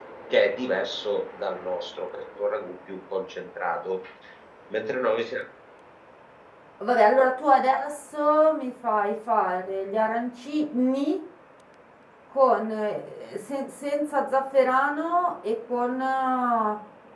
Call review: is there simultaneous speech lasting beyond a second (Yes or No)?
No